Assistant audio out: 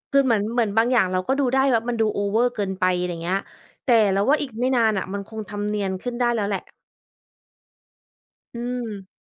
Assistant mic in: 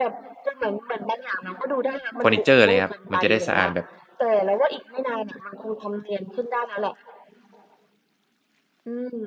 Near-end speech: present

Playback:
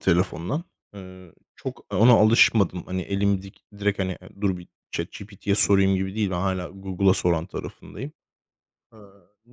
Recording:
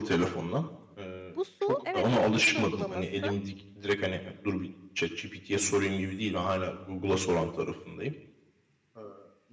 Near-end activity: present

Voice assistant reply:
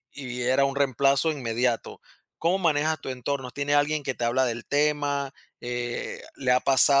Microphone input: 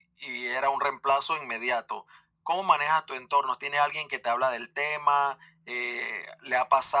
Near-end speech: none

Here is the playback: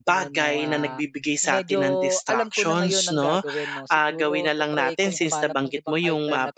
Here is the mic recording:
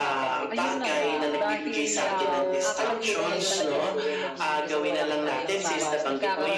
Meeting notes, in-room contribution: present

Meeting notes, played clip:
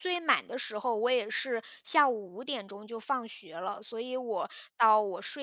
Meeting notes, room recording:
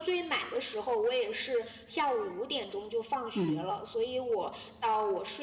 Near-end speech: present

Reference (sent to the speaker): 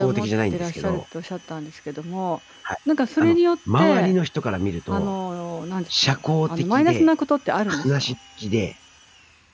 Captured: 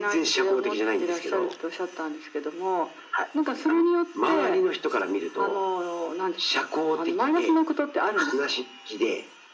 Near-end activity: none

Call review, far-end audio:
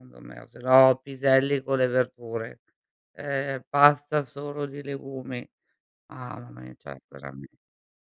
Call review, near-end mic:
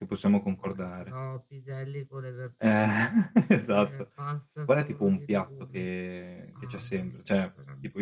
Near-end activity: present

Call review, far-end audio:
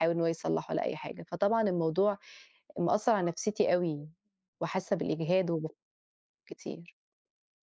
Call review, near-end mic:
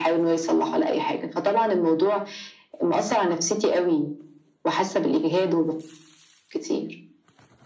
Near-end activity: none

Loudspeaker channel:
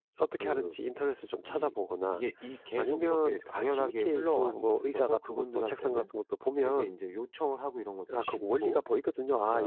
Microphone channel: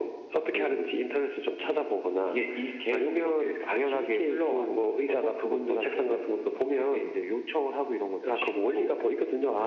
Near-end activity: none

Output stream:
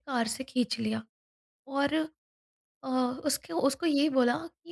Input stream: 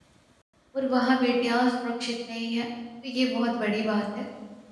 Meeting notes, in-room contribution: present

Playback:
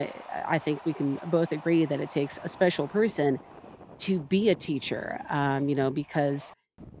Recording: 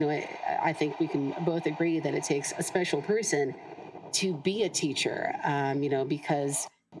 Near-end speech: none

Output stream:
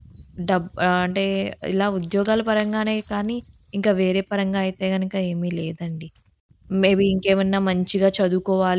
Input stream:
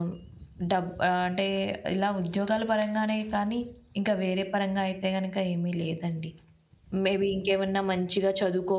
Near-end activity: none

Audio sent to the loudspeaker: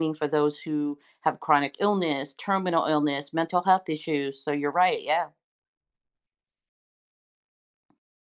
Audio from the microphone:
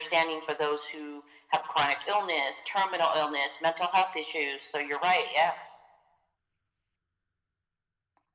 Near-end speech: none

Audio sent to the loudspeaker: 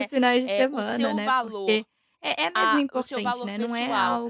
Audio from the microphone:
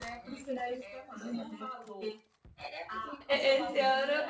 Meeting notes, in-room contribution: present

